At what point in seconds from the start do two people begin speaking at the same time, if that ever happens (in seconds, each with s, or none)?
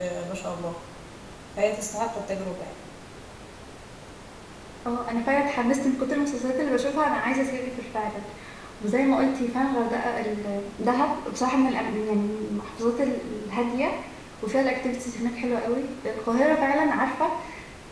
none